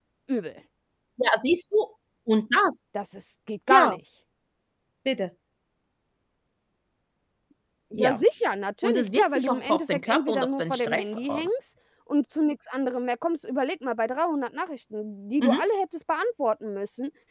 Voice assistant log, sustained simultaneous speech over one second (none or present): present